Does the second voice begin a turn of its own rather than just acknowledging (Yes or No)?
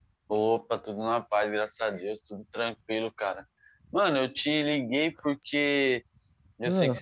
No